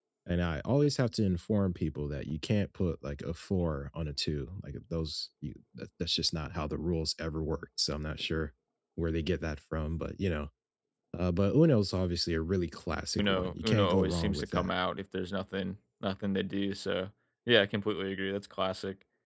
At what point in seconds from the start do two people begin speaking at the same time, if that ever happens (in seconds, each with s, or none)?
13.2 s